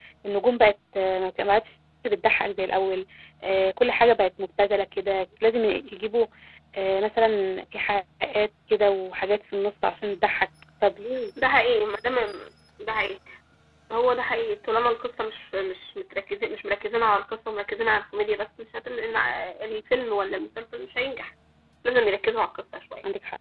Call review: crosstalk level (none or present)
none